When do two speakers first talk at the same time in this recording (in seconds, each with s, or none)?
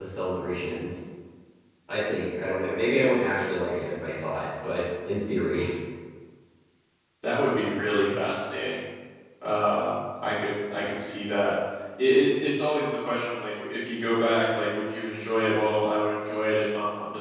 none